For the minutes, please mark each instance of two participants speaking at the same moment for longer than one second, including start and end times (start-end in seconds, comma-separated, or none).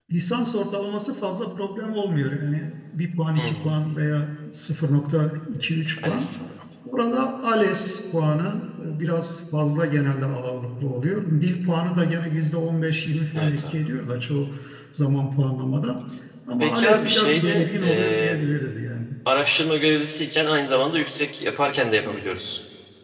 16.6-18.4